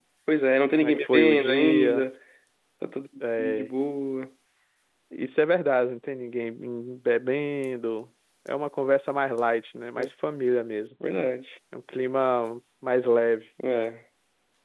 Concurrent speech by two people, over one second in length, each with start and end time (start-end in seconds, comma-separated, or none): 0.8-2.0